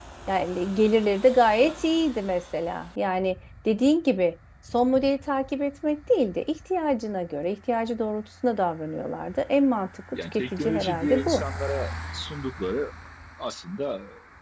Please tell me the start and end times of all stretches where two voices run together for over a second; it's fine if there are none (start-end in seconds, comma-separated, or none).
10.1-11.4